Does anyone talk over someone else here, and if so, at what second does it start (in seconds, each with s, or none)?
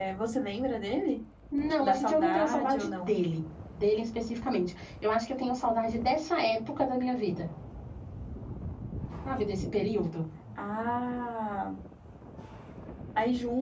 1.7 s